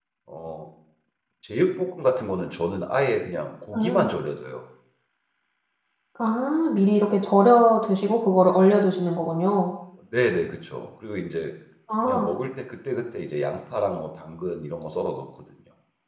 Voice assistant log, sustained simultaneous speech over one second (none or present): none